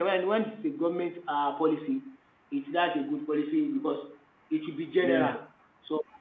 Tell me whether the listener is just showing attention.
Yes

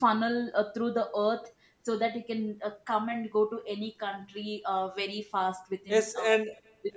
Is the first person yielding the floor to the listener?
Yes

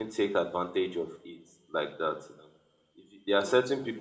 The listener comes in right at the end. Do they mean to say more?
No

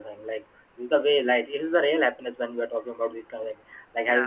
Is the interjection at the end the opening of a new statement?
No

